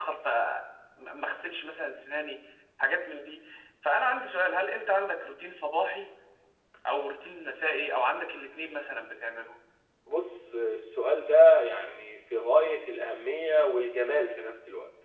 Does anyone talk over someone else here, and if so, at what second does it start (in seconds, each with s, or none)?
none